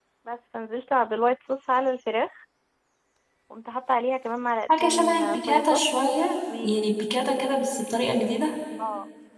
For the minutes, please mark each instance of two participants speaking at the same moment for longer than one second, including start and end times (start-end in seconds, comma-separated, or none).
4.8-6.0